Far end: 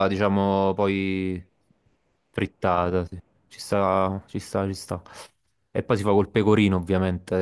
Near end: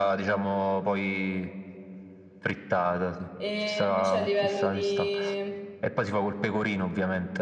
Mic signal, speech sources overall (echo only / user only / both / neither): both